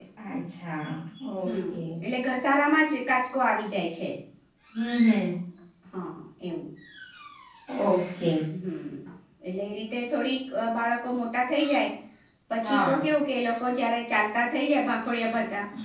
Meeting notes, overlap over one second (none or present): none